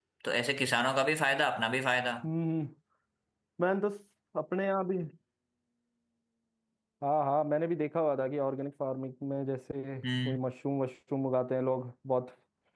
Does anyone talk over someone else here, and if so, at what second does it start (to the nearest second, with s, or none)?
none